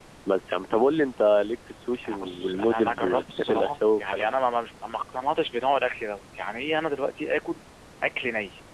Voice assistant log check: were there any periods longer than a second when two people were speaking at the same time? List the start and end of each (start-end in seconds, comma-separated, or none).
2.0-4.4